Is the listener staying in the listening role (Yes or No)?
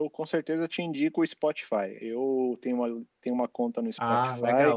Yes